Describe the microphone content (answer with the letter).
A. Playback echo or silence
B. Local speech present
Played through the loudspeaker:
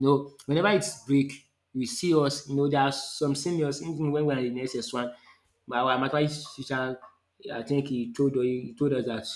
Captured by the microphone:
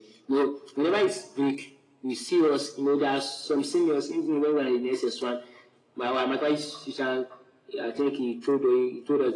A